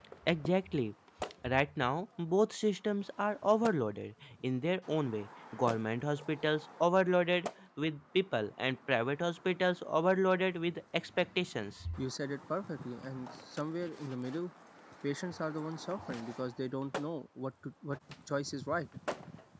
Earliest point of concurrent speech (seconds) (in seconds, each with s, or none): none